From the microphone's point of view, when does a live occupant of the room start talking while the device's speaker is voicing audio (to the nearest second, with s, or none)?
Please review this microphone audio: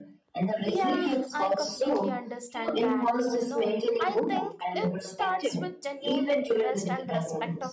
1 s